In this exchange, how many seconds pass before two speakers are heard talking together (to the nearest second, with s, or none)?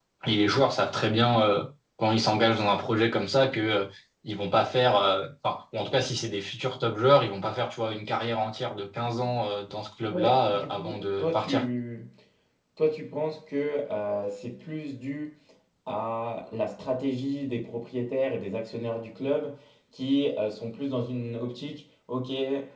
10 s